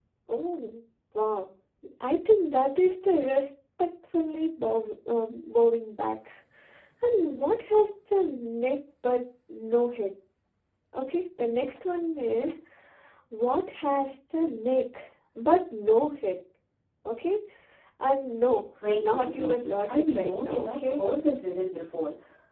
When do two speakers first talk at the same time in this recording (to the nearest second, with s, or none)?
19 s